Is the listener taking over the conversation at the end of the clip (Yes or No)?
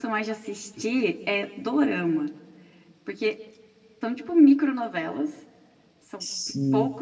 No